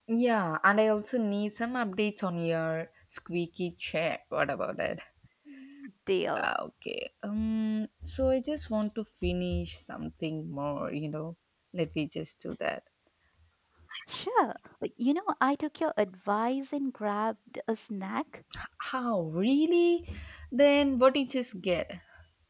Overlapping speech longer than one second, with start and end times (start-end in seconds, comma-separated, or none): none